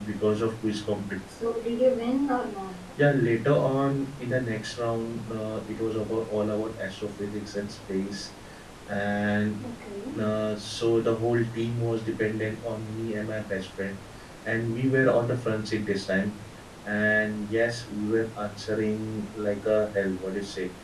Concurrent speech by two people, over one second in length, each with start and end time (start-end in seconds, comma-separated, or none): none